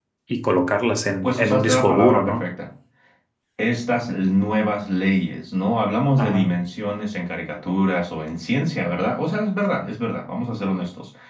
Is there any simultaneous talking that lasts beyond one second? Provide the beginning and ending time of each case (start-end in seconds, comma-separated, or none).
1.2-2.4